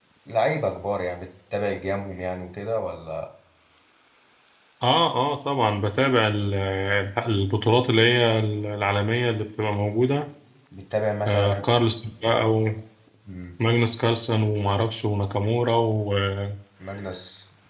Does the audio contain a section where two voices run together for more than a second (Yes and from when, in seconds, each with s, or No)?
No